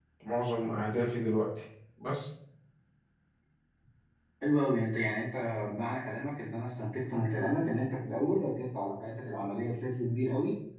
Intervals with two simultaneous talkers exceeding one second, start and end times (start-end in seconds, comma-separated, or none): none